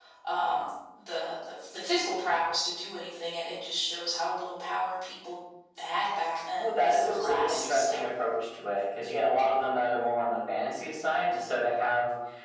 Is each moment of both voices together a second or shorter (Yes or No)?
No